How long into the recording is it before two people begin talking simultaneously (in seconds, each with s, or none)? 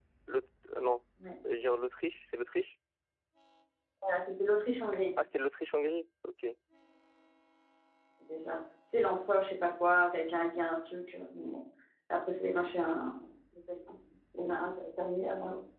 none